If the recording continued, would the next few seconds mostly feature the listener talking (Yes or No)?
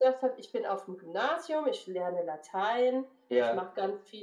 No